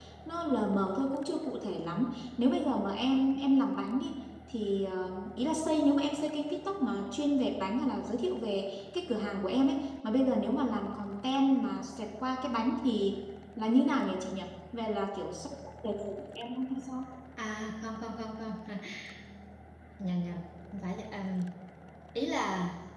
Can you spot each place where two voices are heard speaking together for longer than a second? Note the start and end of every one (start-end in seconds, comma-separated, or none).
none